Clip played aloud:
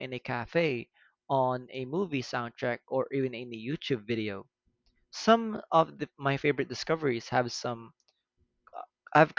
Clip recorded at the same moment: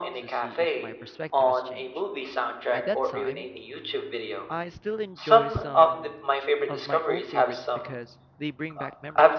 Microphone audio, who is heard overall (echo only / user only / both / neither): both